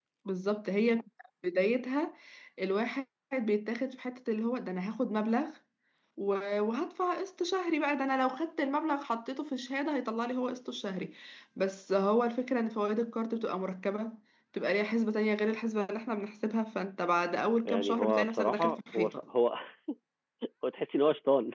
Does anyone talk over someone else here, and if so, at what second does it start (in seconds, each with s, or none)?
17.6 s